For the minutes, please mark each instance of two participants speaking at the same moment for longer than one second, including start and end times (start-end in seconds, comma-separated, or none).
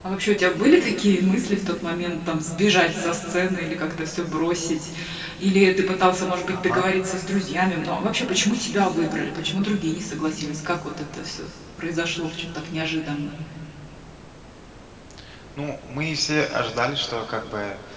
none